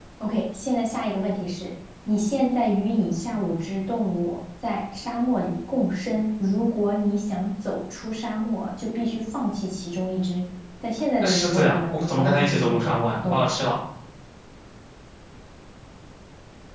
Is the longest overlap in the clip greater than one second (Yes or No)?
Yes